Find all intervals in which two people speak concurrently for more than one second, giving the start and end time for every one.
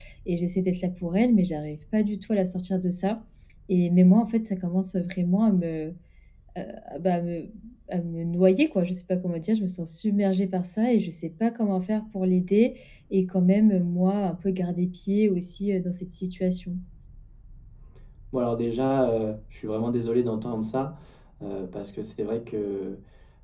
none

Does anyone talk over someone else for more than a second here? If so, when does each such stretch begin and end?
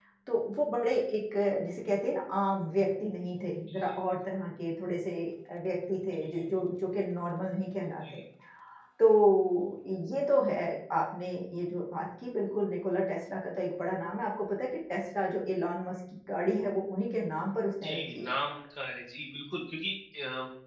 none

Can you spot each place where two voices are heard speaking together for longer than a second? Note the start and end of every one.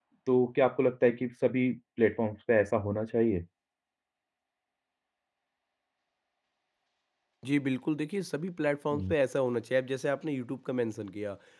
none

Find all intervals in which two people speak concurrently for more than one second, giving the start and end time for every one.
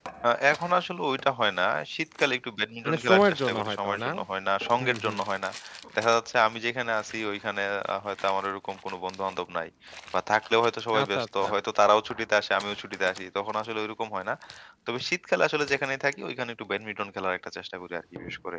2.9-4.1

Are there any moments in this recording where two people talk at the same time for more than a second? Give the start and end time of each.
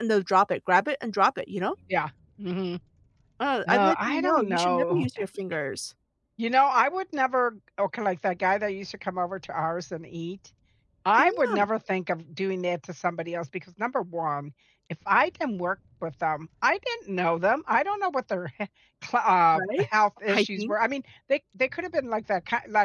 3.7-5.1

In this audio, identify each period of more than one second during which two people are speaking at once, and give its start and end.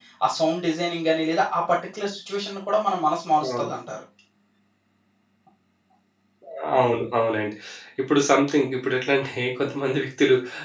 none

